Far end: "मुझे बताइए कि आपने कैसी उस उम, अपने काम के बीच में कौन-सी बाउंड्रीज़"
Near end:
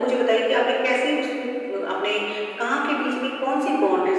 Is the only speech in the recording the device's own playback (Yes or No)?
Yes